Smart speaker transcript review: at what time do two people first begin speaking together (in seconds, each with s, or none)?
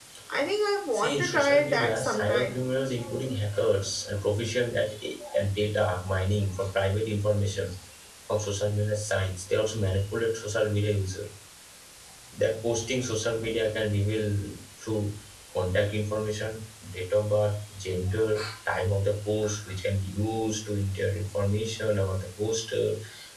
0.9 s